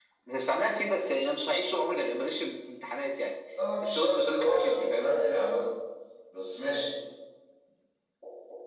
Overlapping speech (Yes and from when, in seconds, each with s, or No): Yes, from 3.8 s